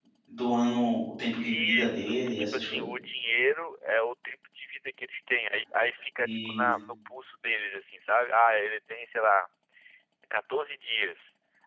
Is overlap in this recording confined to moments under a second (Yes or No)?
No